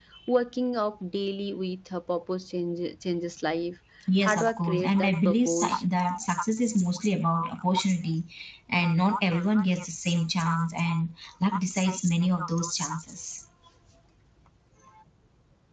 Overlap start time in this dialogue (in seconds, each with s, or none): 4.1 s